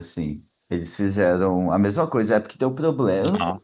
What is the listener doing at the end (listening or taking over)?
listening